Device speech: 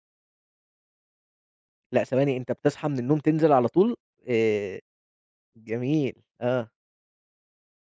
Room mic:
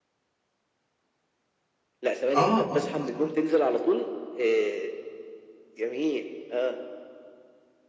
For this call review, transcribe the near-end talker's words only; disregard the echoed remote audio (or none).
آه، آه، آه، آه.